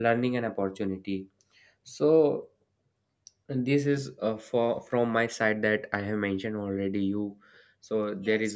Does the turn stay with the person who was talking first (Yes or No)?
No